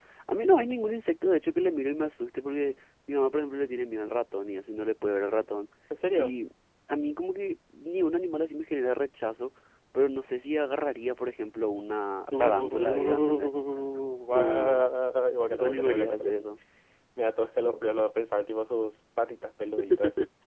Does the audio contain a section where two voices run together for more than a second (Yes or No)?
Yes